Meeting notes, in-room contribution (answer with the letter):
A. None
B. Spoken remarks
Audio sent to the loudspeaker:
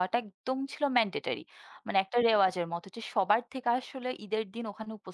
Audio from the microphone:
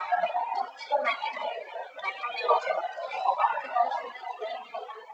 A